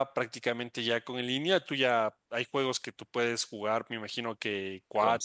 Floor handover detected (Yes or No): No